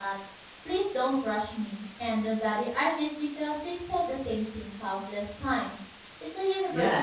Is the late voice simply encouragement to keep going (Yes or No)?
No